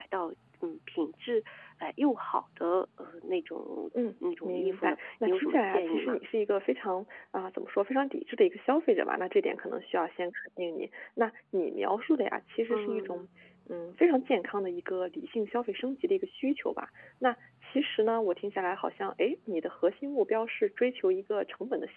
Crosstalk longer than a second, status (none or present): present